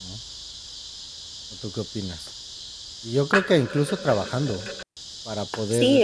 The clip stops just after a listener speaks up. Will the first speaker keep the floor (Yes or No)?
No